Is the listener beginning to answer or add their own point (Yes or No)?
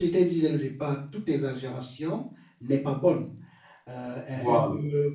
No